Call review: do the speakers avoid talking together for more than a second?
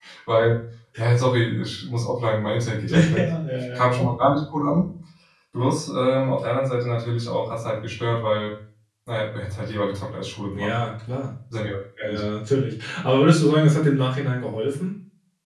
Yes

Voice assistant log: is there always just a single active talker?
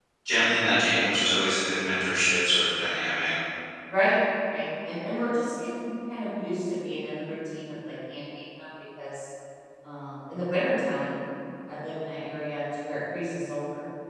Yes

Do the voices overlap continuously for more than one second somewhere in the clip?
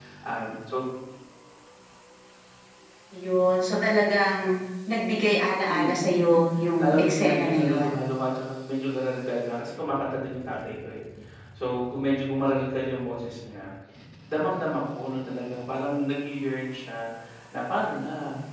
Yes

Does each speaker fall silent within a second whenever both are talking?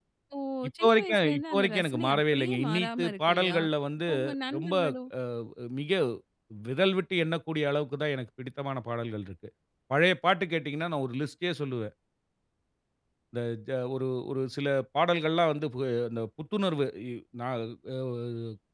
No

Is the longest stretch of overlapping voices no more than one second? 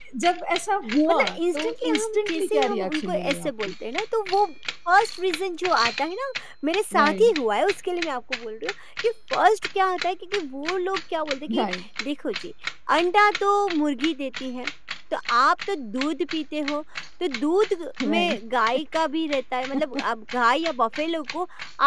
No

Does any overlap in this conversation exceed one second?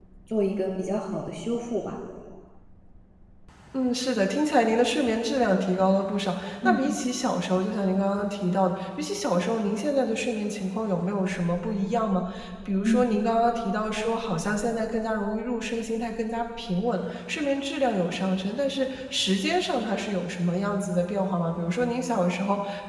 No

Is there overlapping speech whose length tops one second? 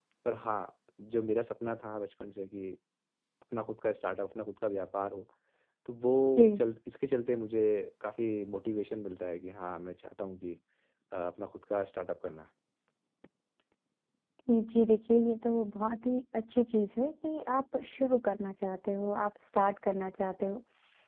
No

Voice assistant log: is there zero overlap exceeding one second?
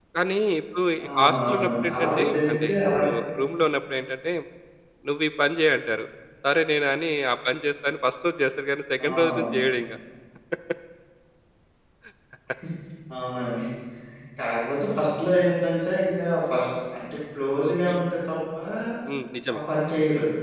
No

